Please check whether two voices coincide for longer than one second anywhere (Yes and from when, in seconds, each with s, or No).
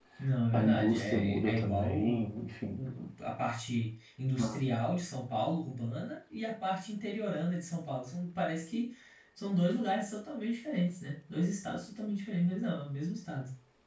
Yes, from 0.5 s